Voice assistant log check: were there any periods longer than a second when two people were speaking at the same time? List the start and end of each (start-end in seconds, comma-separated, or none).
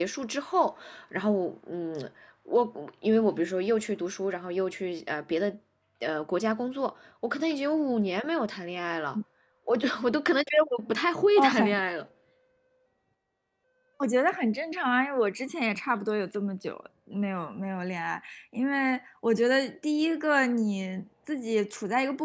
none